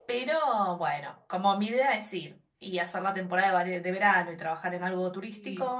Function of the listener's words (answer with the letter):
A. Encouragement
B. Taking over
A